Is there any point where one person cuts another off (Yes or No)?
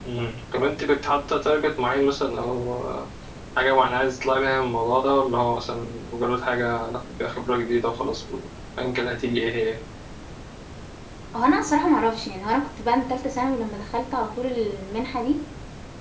No